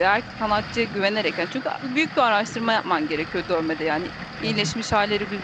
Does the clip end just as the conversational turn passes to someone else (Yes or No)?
No